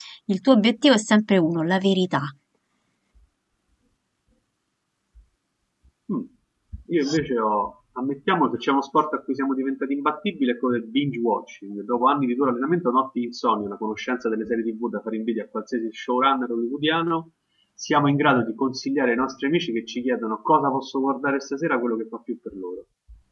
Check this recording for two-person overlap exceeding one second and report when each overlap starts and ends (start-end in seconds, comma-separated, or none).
none